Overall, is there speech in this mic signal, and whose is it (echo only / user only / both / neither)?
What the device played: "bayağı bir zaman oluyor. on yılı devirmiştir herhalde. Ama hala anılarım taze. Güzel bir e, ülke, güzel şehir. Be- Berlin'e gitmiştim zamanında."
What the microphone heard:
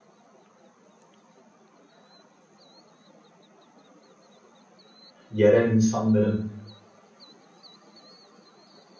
user only